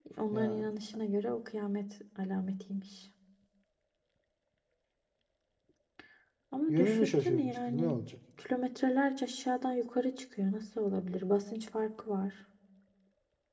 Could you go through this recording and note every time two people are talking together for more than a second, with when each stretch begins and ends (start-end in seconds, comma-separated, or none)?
6.7-8.0